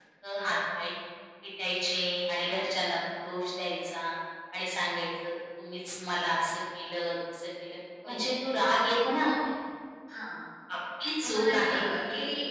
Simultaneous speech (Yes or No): Yes